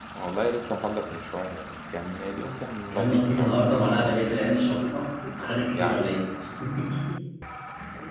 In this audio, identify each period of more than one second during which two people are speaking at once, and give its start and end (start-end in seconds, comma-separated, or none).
2.9-4.7